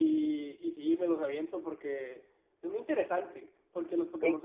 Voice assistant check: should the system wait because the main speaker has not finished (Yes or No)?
Yes